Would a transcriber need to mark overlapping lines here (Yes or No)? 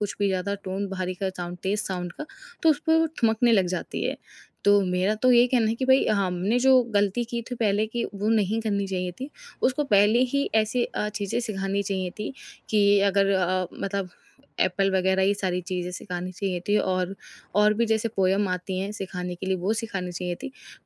No